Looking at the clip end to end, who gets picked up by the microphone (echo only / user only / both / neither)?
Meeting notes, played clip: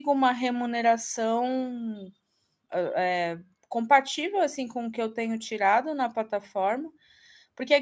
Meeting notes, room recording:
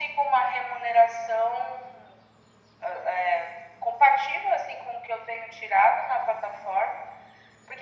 echo only